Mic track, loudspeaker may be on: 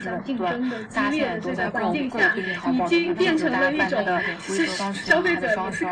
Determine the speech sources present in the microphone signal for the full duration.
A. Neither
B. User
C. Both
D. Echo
C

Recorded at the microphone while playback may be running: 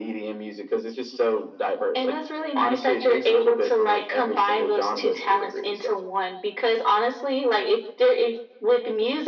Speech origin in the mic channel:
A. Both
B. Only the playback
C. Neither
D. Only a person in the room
B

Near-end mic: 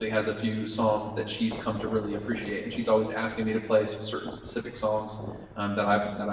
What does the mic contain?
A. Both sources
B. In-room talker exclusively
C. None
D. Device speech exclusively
B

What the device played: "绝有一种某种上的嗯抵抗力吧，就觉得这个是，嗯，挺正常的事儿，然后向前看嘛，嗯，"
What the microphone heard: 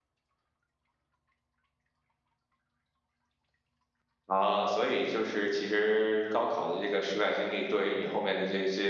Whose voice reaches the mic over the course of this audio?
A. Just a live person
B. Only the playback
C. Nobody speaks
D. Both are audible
A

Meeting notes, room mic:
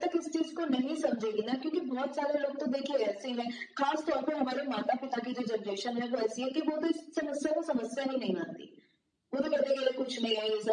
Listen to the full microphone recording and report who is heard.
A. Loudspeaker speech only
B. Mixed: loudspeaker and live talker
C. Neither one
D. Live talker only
A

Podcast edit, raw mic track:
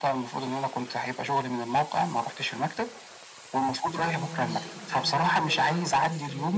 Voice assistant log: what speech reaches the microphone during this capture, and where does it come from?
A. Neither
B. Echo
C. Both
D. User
C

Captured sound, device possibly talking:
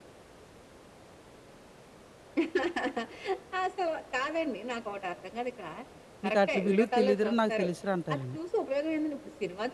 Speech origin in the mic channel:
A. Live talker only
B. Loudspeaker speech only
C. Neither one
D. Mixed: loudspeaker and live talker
D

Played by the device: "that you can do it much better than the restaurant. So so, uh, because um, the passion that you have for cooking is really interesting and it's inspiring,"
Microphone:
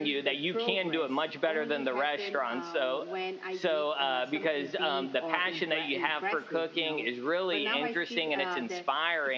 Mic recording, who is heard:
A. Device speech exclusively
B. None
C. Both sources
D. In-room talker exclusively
C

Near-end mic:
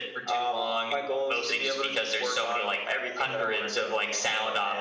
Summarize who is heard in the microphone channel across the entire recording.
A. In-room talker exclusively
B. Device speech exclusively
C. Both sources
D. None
B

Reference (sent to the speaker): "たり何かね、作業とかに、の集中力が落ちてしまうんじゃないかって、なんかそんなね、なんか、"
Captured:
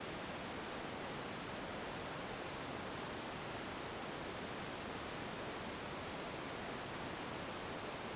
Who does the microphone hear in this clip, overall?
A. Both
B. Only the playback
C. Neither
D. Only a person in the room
C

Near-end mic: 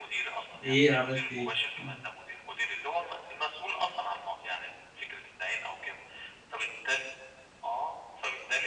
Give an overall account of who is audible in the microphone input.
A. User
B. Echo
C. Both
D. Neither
C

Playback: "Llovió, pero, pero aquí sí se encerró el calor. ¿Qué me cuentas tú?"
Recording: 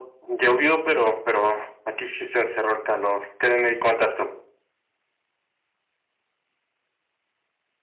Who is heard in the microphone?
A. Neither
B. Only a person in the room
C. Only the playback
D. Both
C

